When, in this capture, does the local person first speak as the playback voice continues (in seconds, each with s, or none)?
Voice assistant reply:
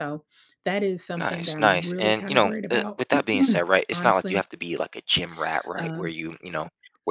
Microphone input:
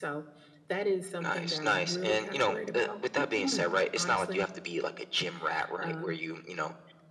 none